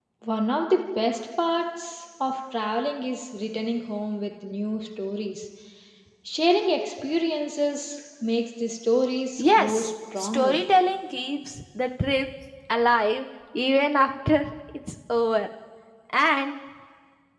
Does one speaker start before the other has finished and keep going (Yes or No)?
Yes